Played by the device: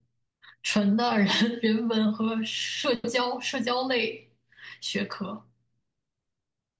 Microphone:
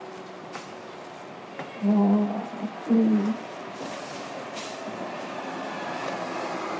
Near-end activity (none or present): present